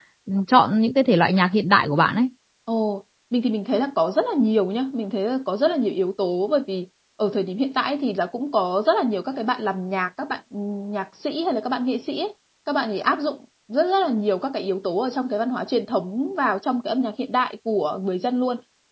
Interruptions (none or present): none